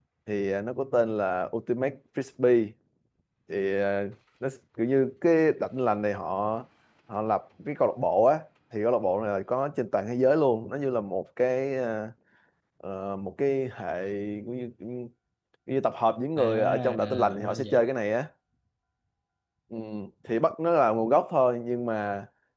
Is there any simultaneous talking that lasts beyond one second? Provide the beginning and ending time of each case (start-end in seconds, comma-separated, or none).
16.4-17.9